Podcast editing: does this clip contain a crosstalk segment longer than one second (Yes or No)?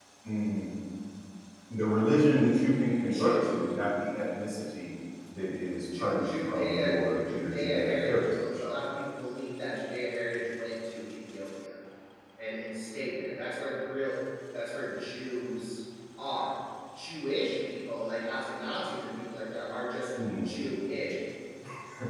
Yes